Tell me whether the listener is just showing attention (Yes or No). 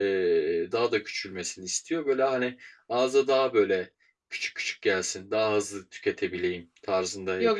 No